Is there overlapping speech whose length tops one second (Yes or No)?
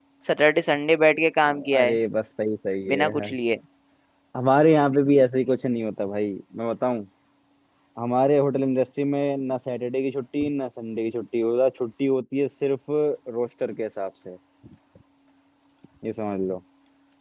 No